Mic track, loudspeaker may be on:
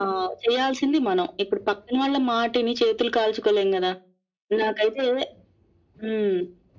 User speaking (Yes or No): No